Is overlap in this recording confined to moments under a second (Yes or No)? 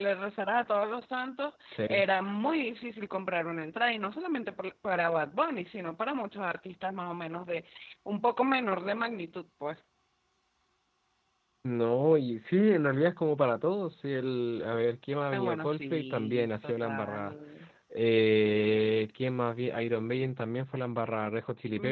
No